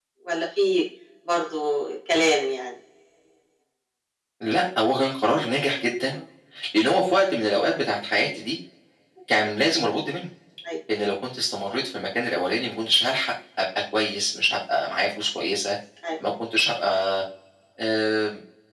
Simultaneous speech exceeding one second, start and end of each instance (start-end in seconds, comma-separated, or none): none